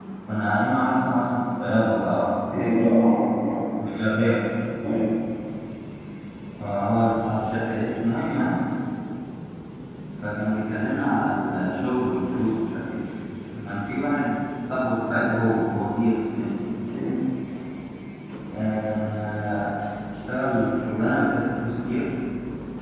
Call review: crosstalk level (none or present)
none